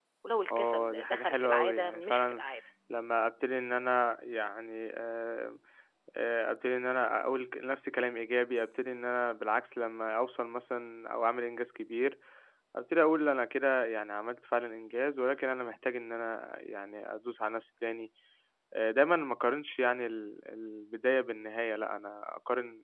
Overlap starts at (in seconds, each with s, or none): 0.5 s